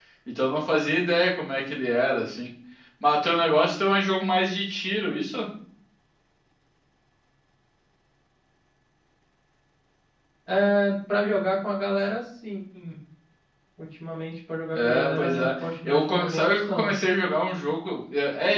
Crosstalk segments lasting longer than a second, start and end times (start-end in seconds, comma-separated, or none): 14.7-16.9